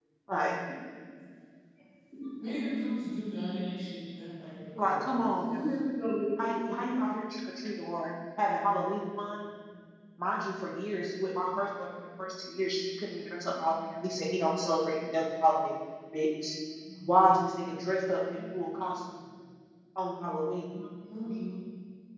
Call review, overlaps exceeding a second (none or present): none